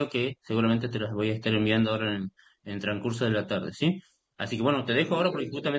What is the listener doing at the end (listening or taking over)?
listening